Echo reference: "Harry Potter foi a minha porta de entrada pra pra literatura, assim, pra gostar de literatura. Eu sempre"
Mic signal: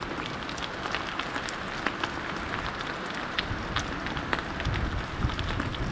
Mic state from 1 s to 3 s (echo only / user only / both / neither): neither